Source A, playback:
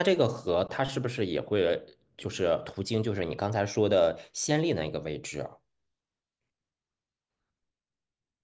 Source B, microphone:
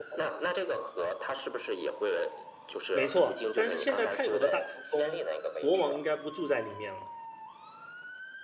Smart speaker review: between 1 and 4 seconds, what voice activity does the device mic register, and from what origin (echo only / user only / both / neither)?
both